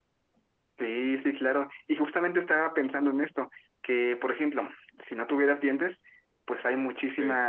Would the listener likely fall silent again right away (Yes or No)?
Yes